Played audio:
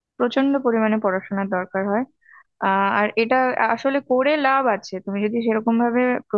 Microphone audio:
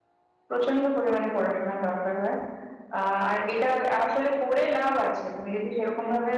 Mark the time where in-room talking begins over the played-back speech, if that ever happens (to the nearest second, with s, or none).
none